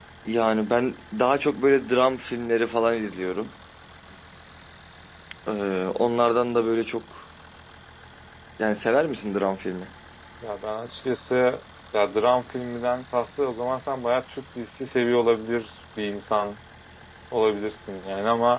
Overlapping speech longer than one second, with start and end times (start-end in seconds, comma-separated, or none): none